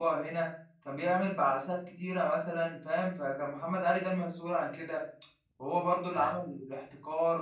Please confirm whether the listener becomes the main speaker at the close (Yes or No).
No